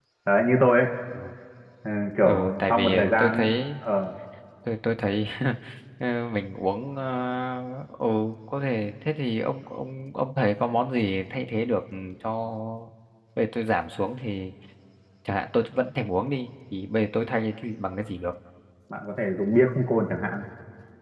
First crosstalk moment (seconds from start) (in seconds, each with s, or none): 2.2 s